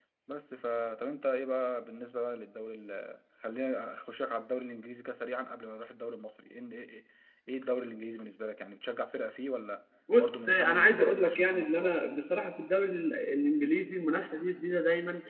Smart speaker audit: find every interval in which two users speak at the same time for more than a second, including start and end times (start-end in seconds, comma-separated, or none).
10.2-12.0